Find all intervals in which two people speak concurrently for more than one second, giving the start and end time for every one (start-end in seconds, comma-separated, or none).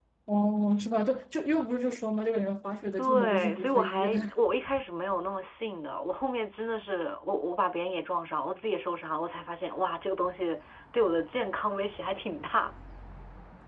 3.0-4.3